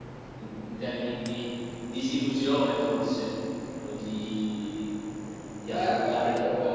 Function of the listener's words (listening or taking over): taking over